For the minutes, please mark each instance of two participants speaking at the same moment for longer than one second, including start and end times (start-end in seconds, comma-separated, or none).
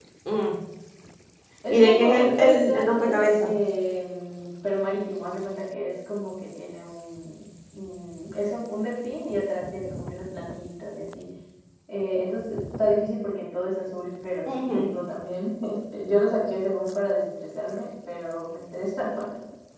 1.7-3.3